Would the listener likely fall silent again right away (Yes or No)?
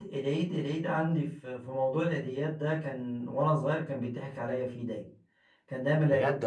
Yes